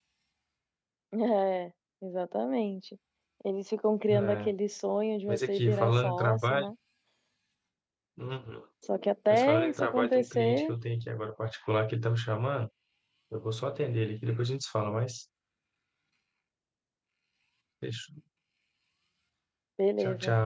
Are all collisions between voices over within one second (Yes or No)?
No